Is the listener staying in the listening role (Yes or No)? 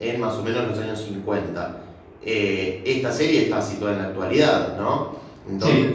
Yes